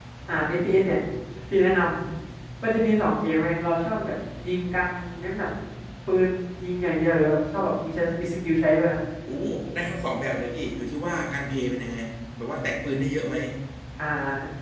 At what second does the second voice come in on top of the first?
none

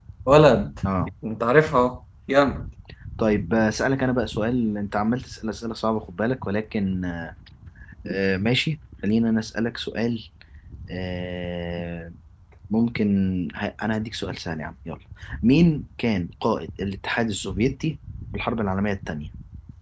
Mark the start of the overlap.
none

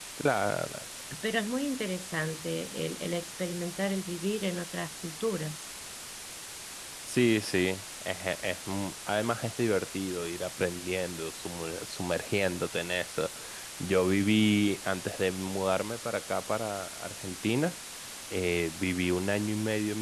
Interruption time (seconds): none

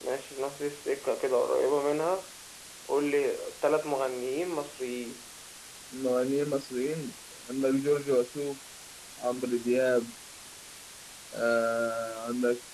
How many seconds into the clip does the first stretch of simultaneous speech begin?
none

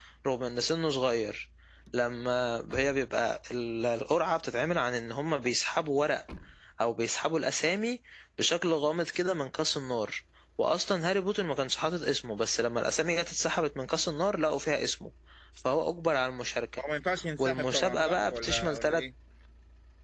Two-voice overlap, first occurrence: 17.4 s

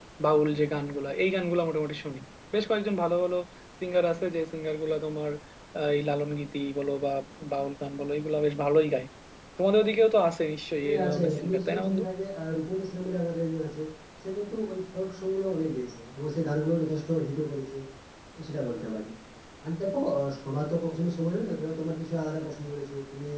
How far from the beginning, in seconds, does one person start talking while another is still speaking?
10.8 s

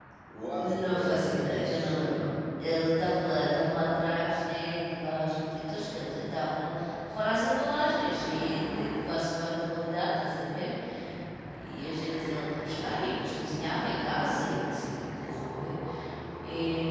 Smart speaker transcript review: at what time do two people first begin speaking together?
0.6 s

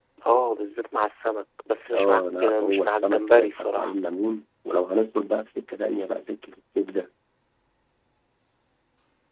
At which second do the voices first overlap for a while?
1.9 s

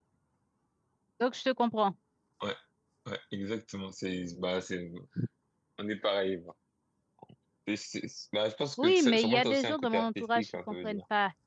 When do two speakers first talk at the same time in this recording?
8.8 s

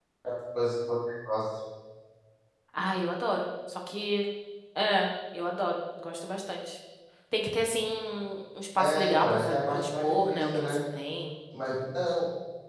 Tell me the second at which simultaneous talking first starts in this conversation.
8.8 s

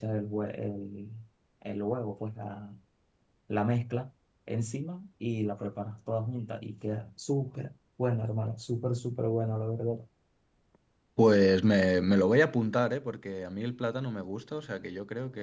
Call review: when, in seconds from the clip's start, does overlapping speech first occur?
none

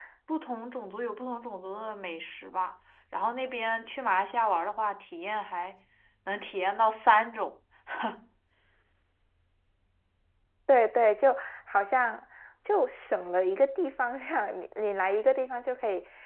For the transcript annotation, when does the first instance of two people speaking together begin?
none

